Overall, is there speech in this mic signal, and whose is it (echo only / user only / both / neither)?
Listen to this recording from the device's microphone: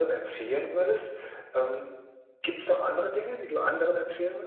echo only